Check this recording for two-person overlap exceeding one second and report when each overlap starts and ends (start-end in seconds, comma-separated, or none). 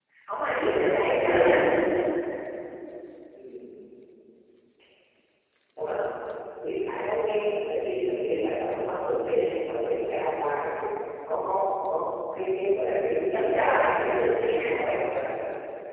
13.3-14.8